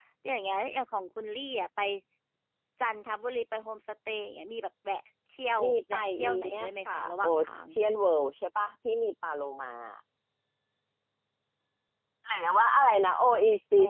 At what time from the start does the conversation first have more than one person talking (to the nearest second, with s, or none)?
6 s